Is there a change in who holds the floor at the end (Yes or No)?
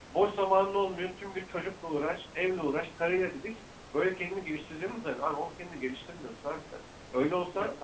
No